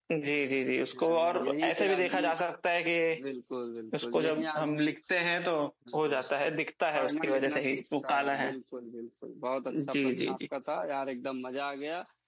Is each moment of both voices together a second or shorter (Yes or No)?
No